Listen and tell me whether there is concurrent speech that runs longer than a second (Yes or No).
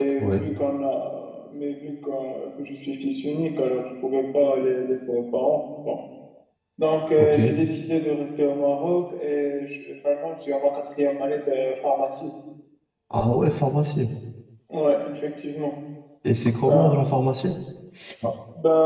No